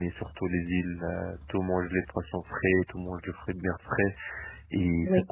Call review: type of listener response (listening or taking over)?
listening